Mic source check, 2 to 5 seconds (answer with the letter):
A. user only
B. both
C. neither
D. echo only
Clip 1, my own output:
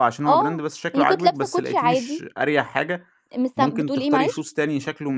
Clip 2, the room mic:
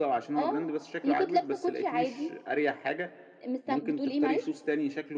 D